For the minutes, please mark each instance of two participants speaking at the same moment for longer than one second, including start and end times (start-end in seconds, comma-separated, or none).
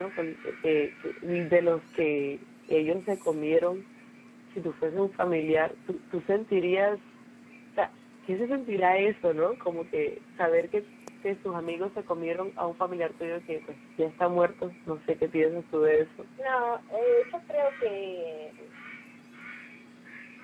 none